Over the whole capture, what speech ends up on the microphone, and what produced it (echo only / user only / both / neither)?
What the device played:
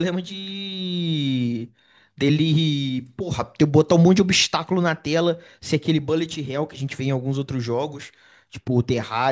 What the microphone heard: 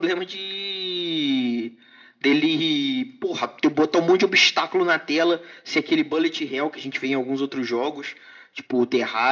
echo only